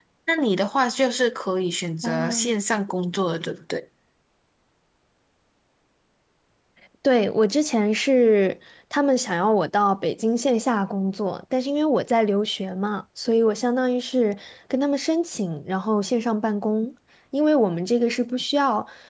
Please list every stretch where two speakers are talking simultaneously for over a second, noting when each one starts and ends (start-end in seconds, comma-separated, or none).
none